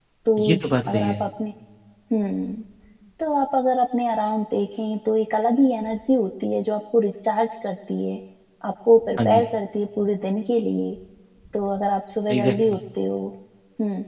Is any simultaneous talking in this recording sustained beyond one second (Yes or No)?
No